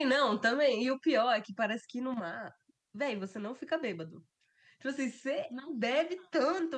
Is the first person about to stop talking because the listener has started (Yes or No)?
No